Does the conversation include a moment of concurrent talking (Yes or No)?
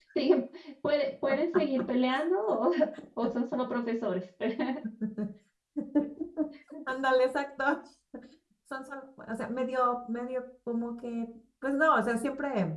No